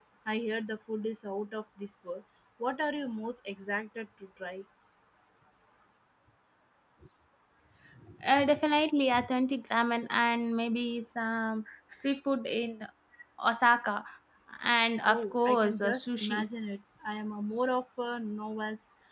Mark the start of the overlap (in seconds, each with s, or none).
15.0 s